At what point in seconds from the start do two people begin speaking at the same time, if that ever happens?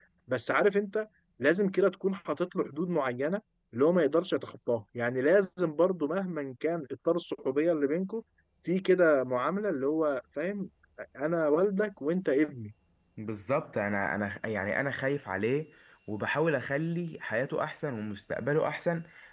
none

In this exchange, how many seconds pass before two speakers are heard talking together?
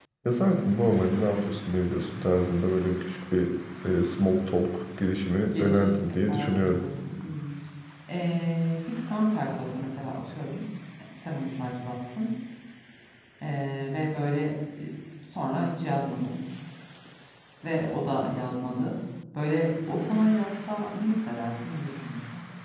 6 s

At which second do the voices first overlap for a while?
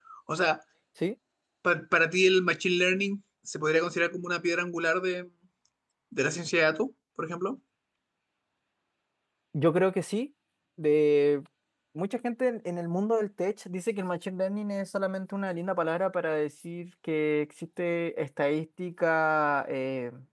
none

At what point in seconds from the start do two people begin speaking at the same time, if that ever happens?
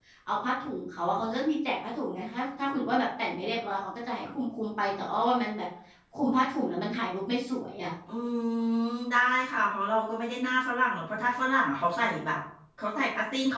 none

